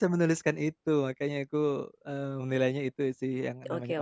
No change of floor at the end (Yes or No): No